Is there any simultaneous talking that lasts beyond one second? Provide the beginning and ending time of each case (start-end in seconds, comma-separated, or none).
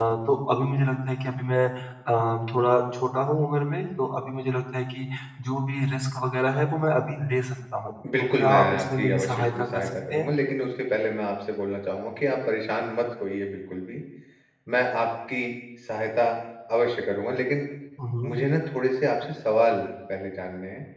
8.2-10.2